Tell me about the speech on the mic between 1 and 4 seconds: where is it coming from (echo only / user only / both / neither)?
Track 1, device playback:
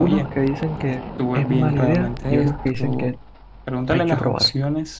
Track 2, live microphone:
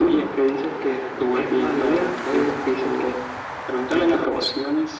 echo only